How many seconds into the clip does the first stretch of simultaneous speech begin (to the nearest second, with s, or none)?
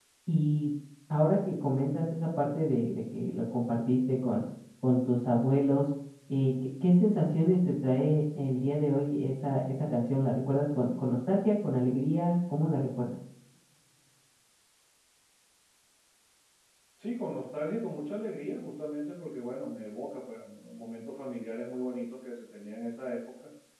none